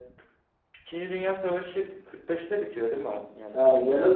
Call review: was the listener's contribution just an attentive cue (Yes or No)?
No